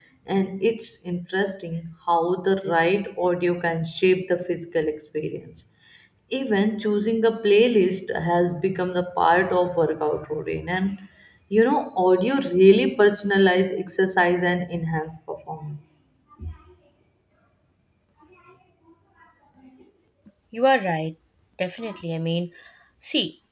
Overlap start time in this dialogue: none

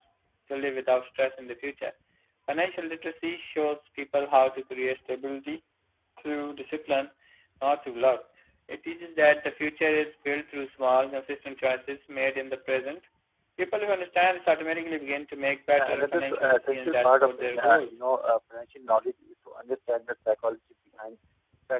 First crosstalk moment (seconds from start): 15.7 s

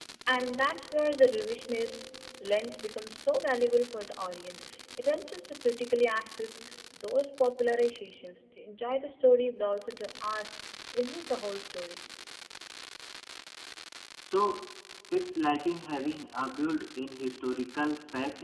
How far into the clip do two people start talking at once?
none

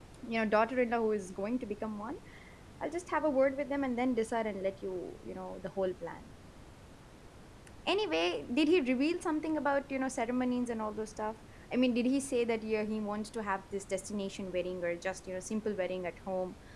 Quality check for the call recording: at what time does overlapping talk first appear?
none

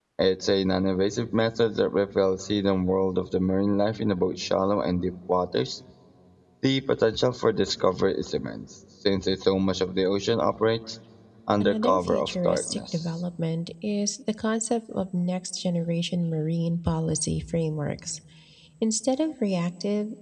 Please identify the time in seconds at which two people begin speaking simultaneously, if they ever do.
11.6 s

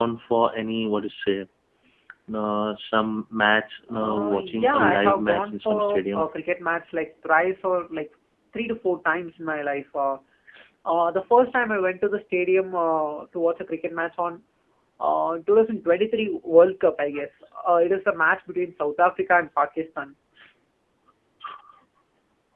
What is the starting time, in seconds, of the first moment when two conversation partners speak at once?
3.9 s

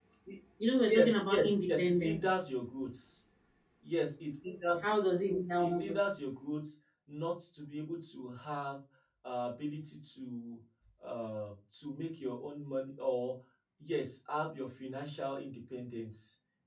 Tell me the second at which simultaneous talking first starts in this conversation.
0.9 s

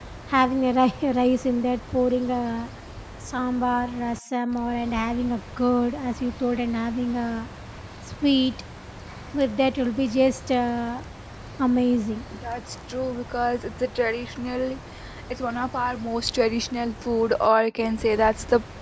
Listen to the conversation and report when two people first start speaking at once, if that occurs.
none

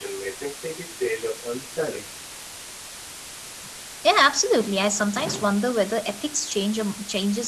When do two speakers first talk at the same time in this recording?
none

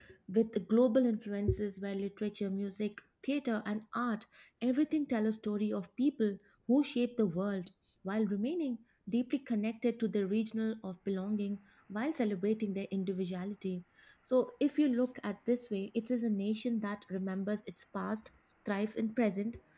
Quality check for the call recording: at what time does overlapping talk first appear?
none

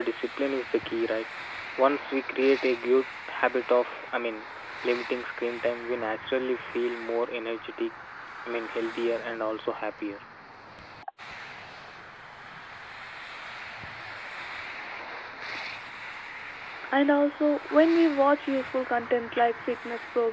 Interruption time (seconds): none

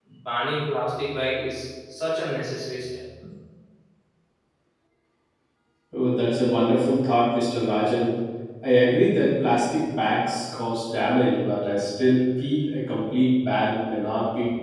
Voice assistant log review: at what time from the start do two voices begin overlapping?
none

